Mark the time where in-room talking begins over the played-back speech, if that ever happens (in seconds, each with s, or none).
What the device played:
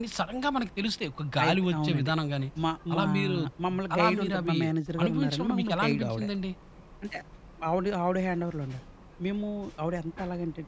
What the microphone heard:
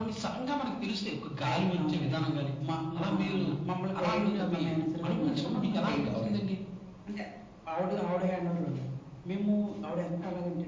none